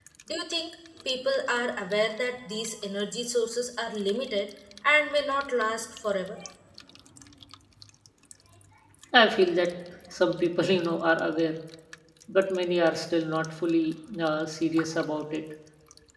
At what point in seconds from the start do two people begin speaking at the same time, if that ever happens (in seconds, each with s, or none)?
none